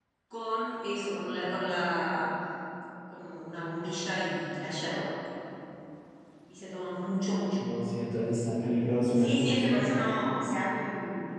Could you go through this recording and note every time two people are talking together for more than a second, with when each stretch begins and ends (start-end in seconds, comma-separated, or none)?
none